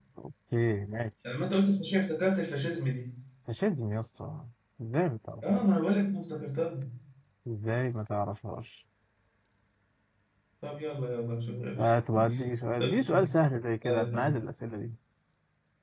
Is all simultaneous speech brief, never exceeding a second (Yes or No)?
Yes